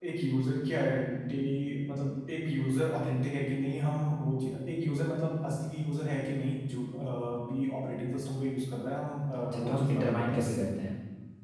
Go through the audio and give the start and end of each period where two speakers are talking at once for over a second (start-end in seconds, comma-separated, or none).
9.4-10.7